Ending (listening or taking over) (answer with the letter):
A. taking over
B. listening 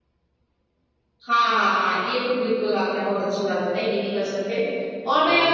B